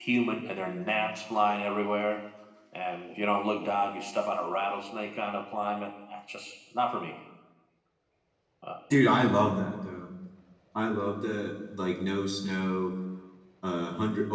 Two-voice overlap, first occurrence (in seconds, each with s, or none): none